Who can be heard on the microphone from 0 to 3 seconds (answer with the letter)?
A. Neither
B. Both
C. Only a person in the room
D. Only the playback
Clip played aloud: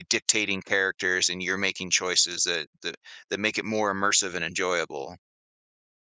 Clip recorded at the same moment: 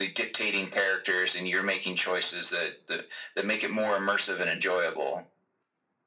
D